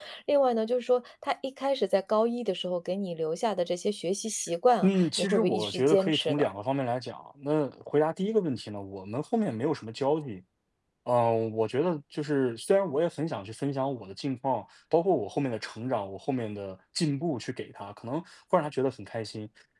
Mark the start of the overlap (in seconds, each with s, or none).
4.8 s